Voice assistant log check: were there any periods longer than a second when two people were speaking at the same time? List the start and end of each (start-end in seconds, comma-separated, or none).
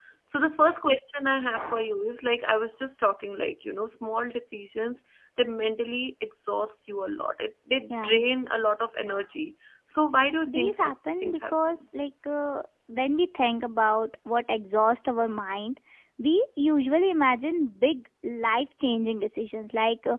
10.5-11.8